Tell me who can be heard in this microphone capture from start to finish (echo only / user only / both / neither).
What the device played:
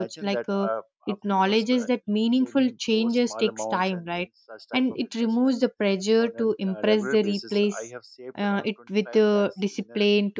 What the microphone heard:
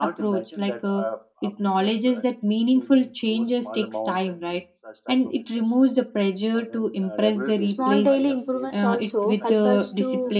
both